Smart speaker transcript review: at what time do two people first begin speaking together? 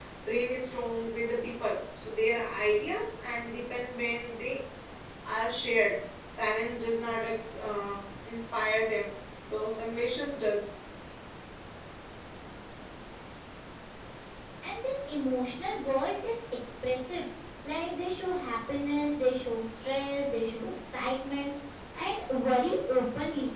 none

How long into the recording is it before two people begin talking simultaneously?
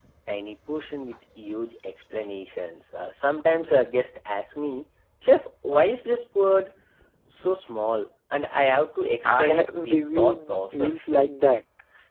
9.2 s

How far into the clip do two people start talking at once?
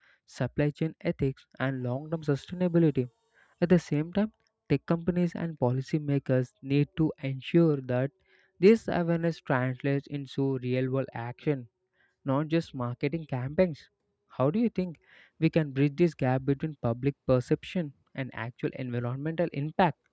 none

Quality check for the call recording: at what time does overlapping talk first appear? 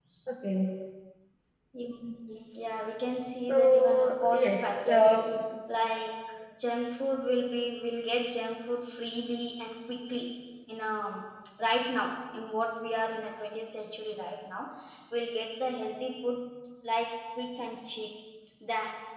3.5 s

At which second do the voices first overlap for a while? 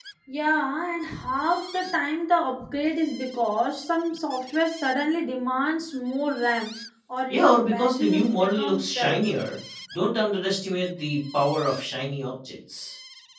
7.3 s

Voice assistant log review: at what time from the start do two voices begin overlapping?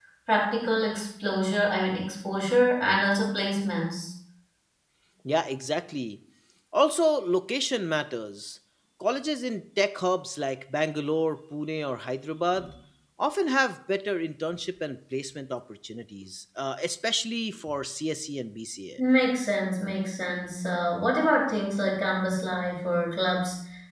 none

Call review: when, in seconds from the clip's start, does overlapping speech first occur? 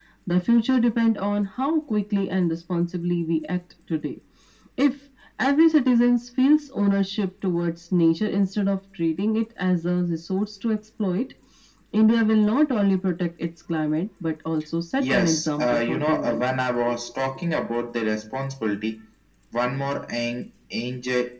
15.0 s

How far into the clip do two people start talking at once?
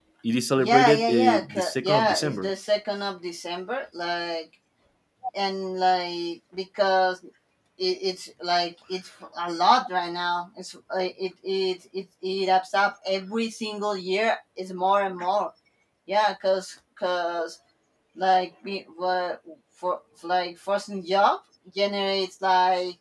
0.6 s

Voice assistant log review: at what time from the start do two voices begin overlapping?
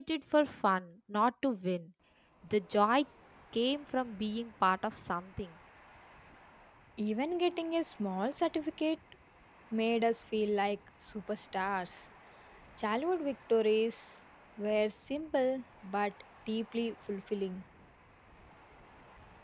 none

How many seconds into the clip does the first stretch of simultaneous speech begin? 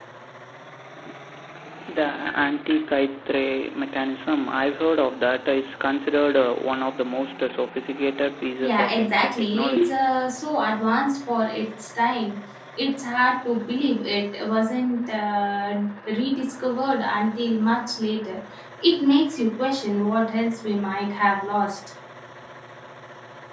8.6 s

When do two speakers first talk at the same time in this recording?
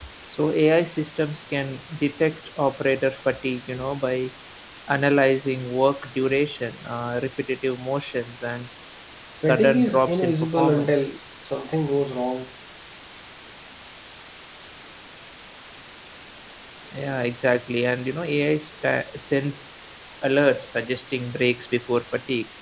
9.4 s

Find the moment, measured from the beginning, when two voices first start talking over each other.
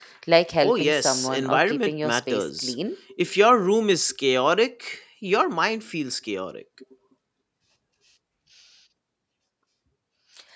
0.6 s

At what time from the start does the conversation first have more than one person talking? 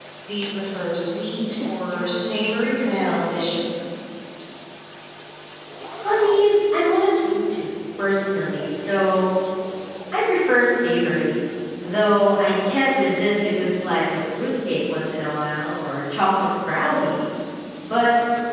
1.9 s

